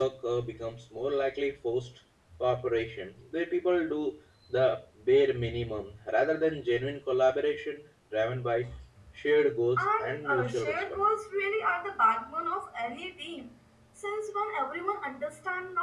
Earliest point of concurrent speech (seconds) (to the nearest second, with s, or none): 10 s